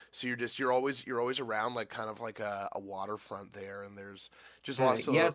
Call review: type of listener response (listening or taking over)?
taking over